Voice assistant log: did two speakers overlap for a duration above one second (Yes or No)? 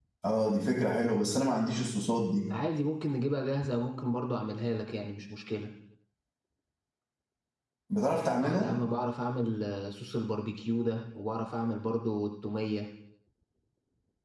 No